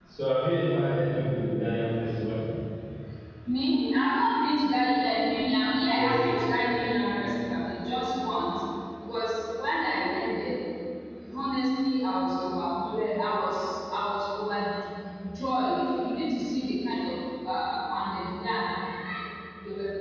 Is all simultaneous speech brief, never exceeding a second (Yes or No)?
Yes